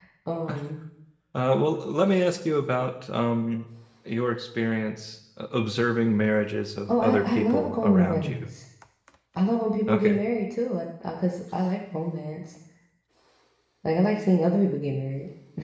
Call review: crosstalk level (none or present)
present